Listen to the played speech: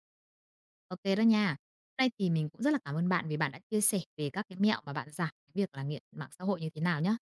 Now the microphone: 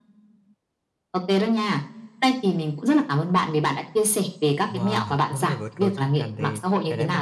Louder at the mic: echo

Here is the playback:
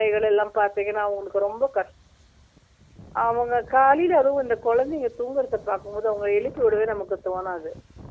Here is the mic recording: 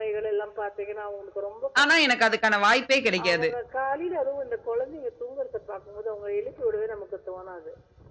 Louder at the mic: user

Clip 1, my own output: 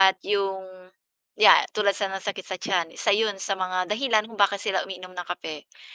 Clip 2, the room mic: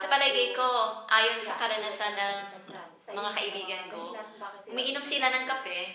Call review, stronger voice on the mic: user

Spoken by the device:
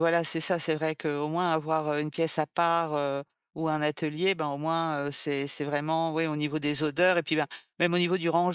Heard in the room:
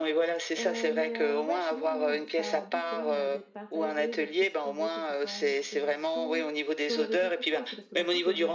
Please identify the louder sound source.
echo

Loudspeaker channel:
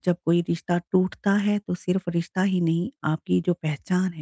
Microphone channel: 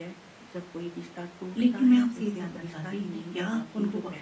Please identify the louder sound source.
user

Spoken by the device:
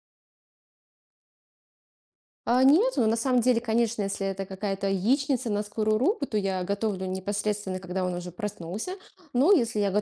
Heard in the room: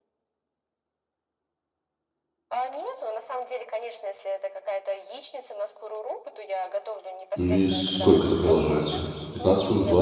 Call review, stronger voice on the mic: user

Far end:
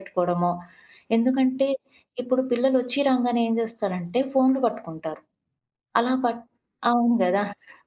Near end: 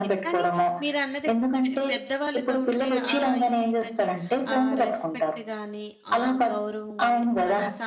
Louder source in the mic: echo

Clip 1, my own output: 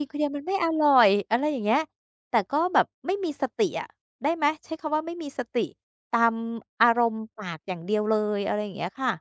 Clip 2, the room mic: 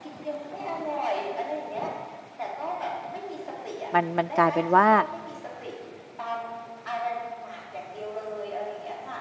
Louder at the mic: user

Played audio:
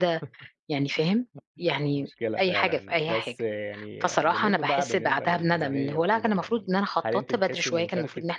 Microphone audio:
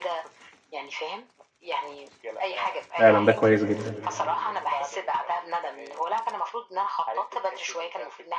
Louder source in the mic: user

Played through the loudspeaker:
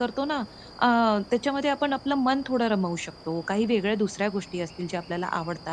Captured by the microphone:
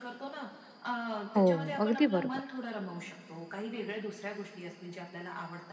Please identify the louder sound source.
user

